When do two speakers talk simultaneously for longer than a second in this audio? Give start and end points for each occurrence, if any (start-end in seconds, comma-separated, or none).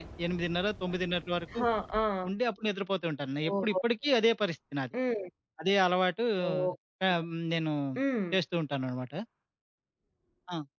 none